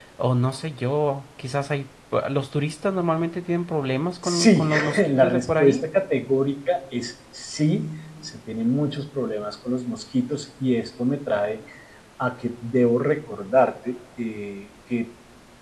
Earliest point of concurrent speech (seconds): 4.2 s

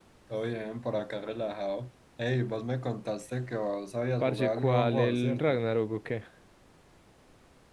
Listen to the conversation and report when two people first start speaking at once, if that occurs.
4.2 s

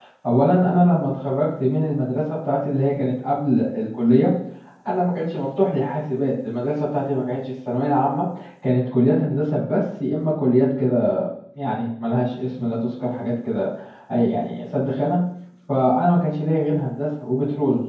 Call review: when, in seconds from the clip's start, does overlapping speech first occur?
none

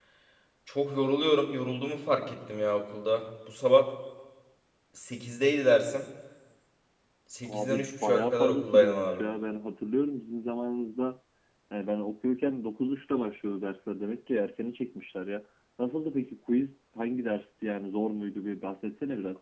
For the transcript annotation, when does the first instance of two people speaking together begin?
7.5 s

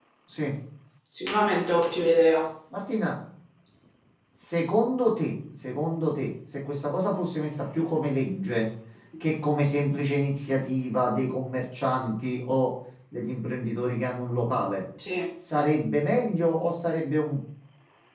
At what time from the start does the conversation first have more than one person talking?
none

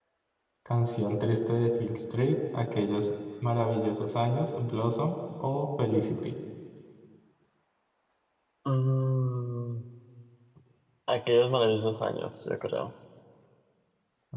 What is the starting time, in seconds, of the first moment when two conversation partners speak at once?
none

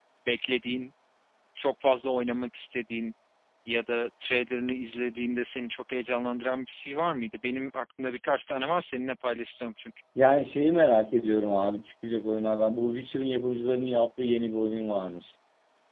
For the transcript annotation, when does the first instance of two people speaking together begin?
none

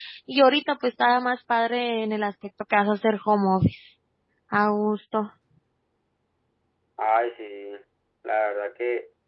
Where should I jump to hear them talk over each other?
none

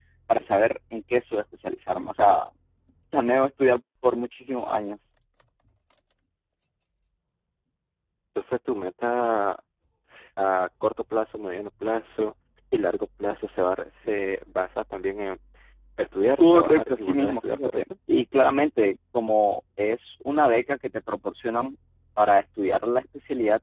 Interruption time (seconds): 16.4 s

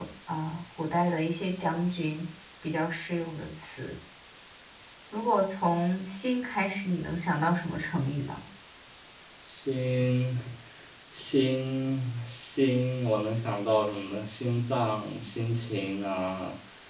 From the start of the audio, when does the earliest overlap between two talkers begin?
none

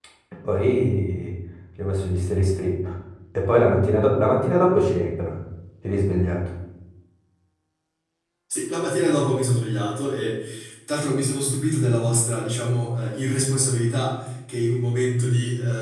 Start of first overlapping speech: none

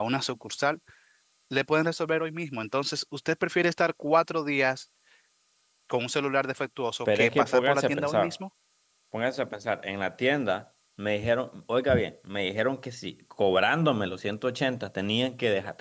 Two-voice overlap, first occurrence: 7.0 s

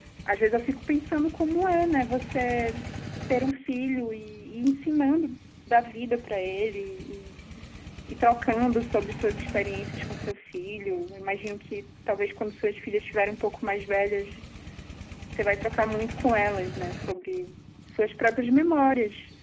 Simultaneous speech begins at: none

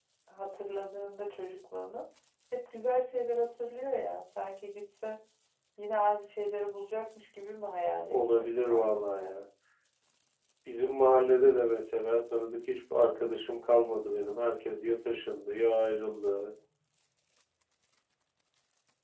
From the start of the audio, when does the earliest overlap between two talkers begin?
8.1 s

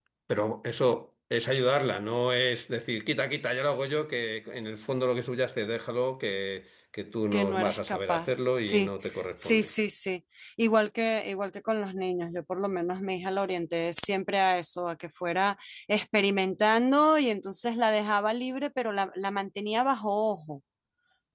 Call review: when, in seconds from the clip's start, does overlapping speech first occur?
7.3 s

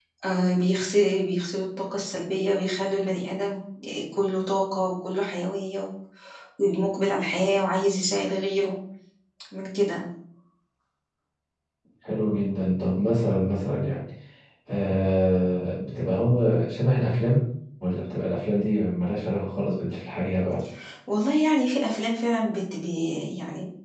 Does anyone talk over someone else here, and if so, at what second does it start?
none

